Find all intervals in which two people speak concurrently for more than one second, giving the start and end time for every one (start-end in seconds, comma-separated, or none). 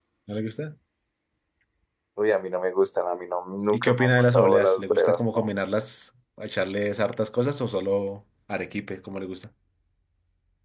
3.7-5.5